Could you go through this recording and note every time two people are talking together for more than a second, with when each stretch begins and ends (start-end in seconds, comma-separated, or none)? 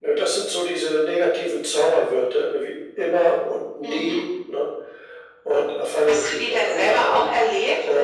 6.0-7.3